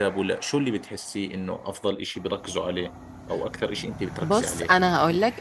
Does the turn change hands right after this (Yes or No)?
Yes